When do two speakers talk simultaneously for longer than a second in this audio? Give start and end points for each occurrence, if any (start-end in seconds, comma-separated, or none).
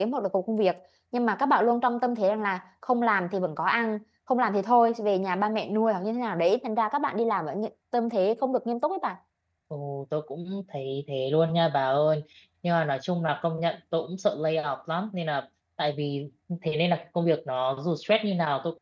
none